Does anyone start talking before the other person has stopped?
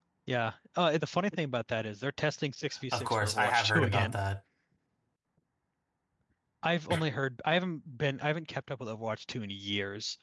Yes, from 2.9 s

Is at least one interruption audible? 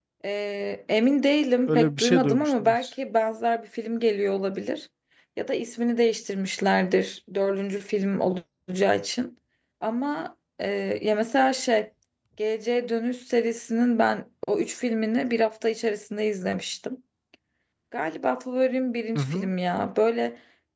Yes, from 1.7 s

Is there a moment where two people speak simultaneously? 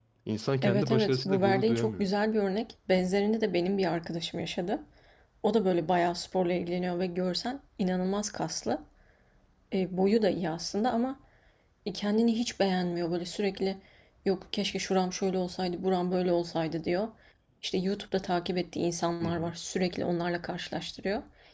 Yes, from 0.6 s

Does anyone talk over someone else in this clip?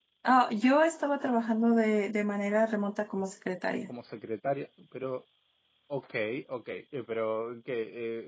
No

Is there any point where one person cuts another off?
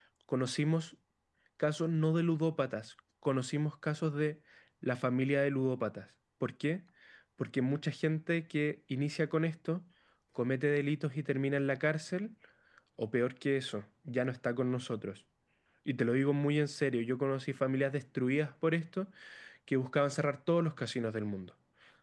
No

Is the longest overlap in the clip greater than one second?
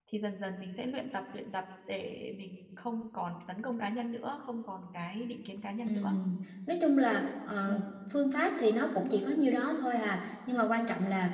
No

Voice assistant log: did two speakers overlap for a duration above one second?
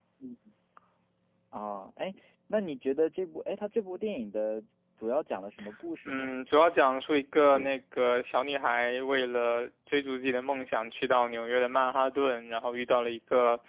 No

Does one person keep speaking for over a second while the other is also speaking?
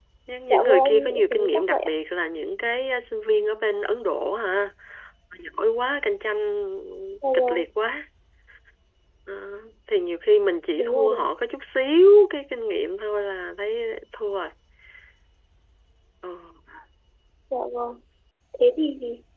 Yes, from 0.5 s

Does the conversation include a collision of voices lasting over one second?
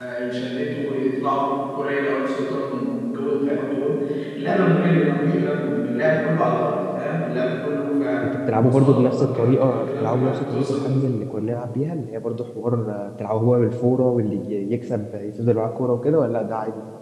Yes, from 8.2 s

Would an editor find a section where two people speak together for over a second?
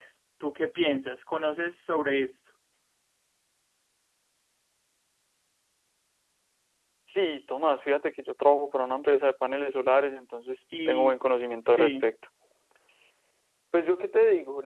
No

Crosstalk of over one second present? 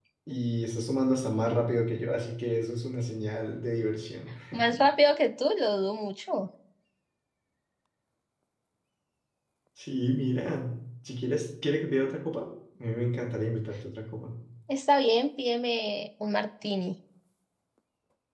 No

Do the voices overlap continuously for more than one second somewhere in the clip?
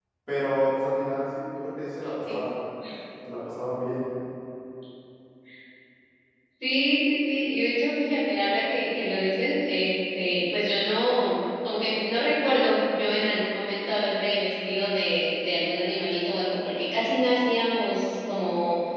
No

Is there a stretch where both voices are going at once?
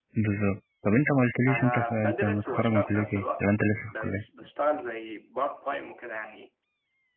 Yes, from 1.5 s

